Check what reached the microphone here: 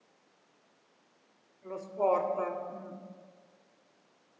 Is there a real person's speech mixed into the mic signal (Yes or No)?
Yes